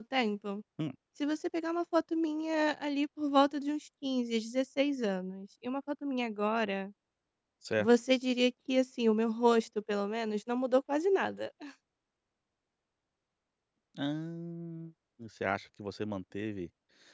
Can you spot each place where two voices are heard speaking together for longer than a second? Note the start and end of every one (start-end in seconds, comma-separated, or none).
none